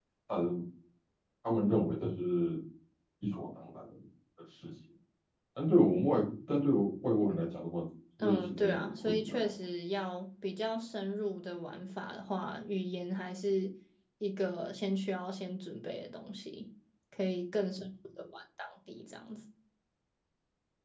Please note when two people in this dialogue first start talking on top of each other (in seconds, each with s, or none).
8.2 s